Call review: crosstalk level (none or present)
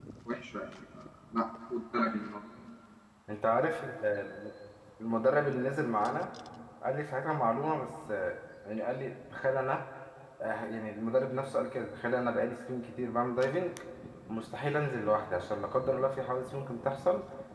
none